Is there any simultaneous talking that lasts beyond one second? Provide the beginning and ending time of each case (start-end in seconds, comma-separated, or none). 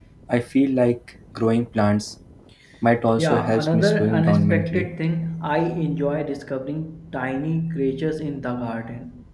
3.2-4.9